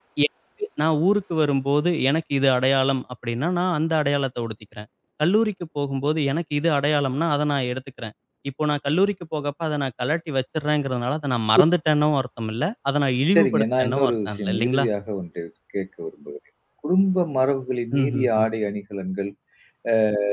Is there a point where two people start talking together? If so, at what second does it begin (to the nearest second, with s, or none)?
13 s